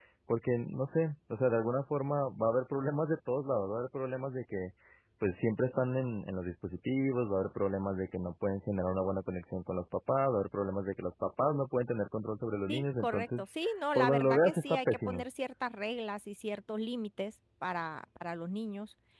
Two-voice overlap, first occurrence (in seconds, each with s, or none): 12.7 s